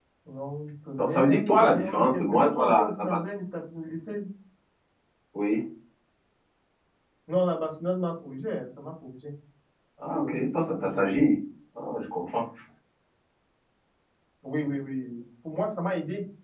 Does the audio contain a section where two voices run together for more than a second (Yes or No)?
Yes